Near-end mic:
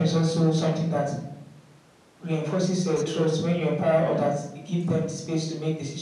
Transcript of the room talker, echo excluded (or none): So,